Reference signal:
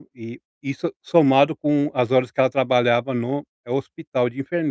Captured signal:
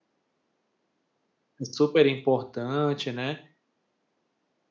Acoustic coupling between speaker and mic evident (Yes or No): No